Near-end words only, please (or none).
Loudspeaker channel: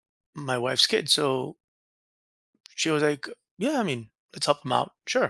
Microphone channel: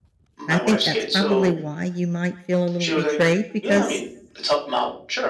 I think that's probably why you might feel a little betrayed because